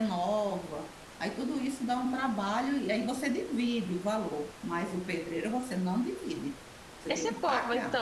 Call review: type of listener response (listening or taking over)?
taking over